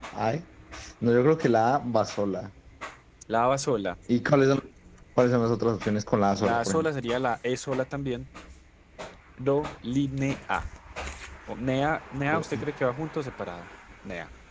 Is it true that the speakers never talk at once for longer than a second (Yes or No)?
Yes